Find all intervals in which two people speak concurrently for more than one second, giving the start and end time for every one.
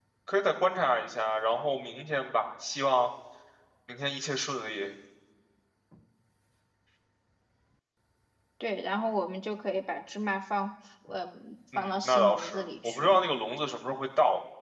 11.8-13.2

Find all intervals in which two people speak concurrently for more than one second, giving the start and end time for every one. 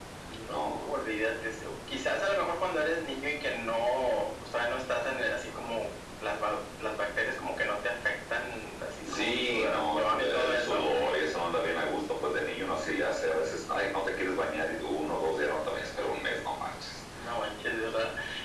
9.1-10.8

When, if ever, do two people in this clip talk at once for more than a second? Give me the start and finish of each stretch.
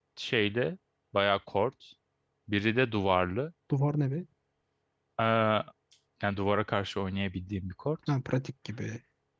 none

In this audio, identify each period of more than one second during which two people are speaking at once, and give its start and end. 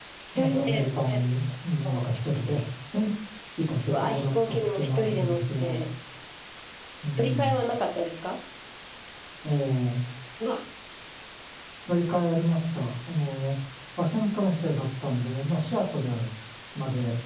3.9-5.8

